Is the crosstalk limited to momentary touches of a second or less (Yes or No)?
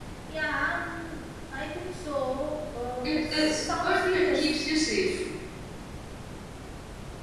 No